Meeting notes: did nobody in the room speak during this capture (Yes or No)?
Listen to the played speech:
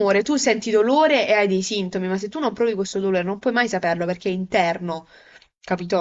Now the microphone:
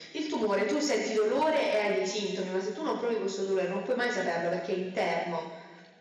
Yes